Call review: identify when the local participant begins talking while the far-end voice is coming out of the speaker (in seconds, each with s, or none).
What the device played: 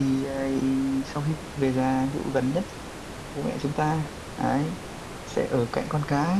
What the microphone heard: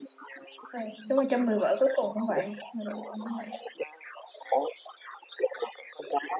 0.7 s